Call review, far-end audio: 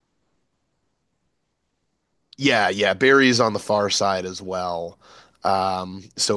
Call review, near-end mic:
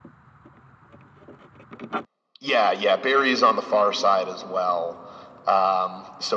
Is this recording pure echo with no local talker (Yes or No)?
Yes